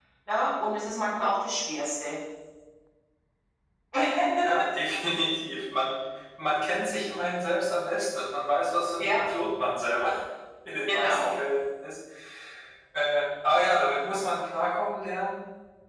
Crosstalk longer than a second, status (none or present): none